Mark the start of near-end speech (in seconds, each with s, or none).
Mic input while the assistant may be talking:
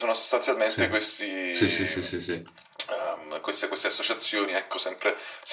0.7 s